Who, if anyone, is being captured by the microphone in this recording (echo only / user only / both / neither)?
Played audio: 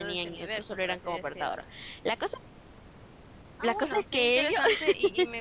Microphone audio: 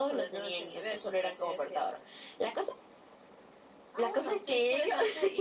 echo only